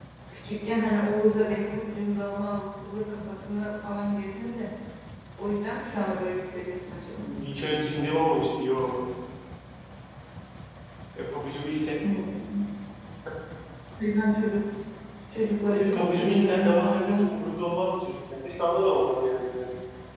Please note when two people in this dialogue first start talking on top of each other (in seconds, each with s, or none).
15.7 s